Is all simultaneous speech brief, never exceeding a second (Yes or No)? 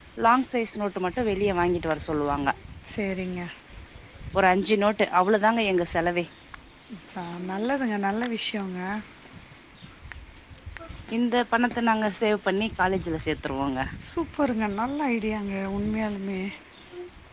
Yes